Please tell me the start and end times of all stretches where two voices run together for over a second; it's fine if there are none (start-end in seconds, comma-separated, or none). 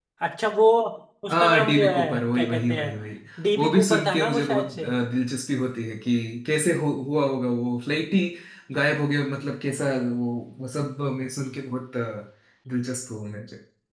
1.3-2.9, 3.6-4.9